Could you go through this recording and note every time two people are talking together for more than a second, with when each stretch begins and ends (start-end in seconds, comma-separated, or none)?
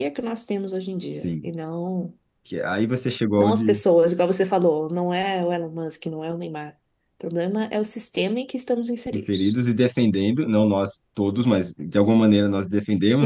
none